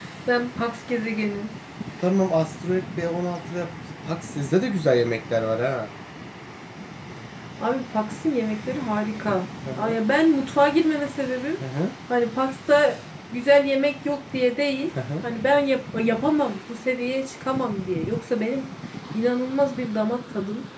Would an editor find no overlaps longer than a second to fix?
Yes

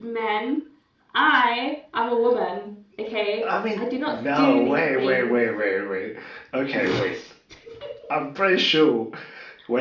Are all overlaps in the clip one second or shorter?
No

